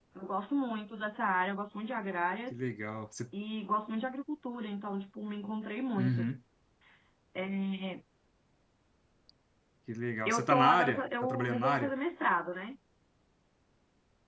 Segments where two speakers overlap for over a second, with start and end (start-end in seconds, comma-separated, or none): 10.3-11.9